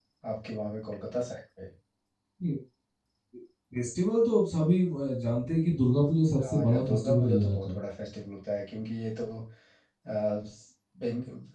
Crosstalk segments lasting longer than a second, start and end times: 6.4-7.8

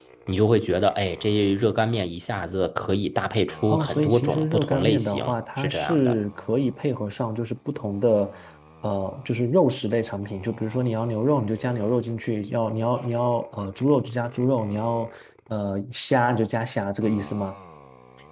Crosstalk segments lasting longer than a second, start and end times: 3.7-6.2

